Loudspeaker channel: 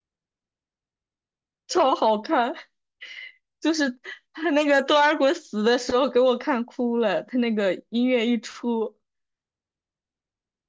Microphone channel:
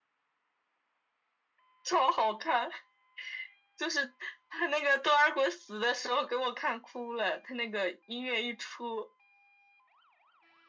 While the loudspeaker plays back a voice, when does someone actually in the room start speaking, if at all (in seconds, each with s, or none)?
none